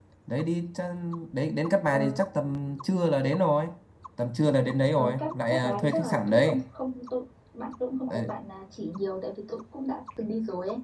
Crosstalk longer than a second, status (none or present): present